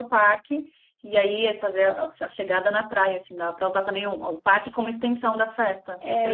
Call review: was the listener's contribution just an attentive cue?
No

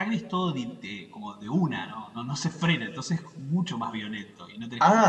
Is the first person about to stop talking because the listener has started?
Yes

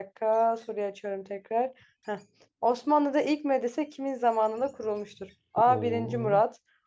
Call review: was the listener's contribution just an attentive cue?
Yes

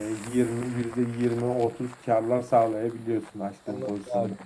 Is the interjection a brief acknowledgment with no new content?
No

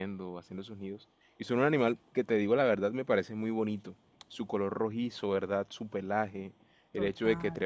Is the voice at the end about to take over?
No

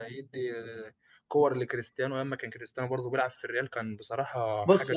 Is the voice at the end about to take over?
Yes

